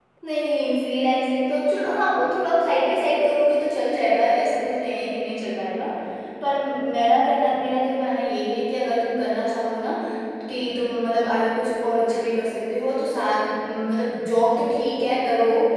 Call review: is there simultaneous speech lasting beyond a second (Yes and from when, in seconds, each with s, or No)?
No